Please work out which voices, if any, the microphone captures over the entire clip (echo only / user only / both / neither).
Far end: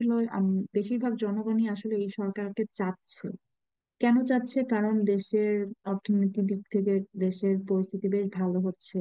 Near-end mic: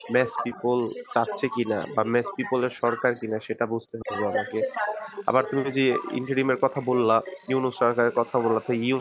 both